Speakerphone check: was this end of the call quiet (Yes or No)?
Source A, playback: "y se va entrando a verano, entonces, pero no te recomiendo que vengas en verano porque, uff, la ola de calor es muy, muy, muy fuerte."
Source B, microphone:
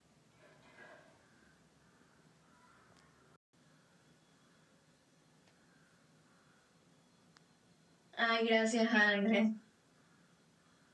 No